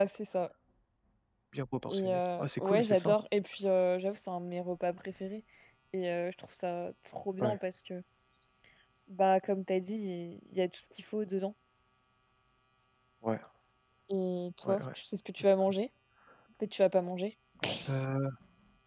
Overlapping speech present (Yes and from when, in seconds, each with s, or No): Yes, from 1.9 s